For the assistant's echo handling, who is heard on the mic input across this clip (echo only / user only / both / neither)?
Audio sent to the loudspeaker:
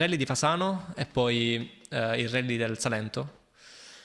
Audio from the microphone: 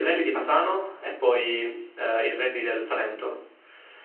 echo only